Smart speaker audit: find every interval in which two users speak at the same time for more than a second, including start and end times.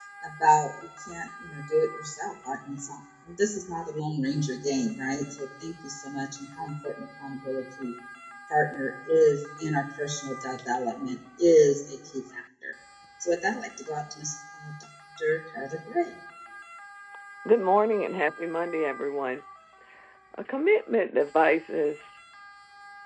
none

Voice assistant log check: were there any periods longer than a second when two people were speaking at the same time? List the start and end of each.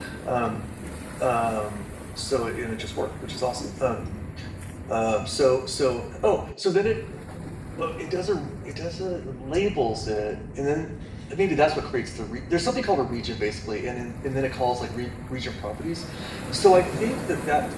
none

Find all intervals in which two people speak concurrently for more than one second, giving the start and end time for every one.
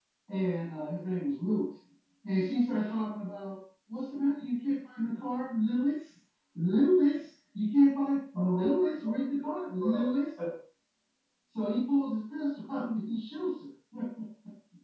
8.3-10.1

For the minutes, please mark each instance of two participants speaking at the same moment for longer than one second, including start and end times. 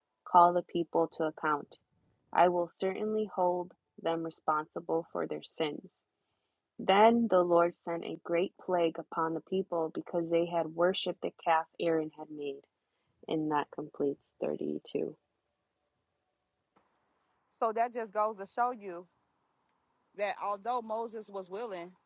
none

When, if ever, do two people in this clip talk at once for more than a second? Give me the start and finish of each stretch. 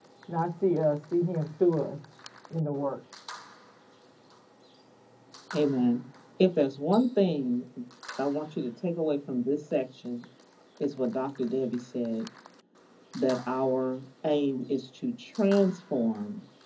none

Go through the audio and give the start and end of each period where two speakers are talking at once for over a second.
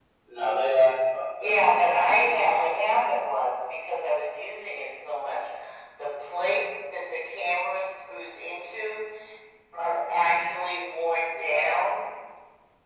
1.4-2.7

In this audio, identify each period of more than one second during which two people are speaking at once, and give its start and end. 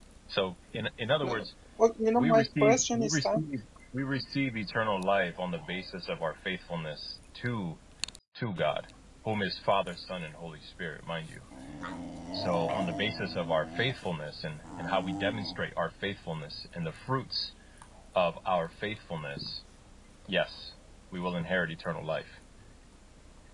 2.2-3.4

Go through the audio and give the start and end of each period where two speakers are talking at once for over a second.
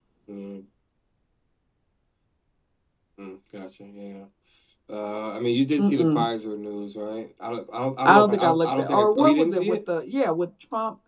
8.0-9.8

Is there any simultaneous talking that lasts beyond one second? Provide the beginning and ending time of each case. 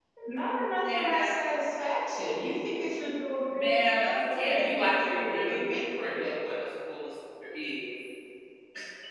3.6-6.4

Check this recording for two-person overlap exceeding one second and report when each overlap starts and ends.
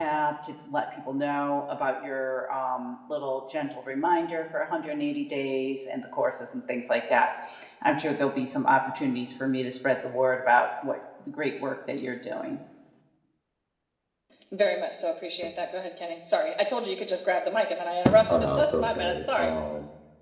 18.3-19.5

